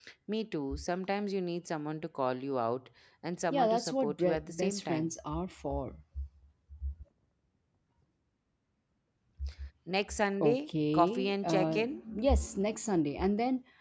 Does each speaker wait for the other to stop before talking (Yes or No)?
No